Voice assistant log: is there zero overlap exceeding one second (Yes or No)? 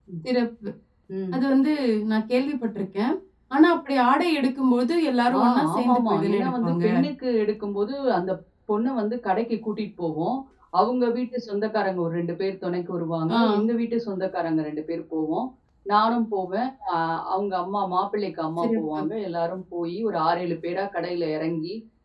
No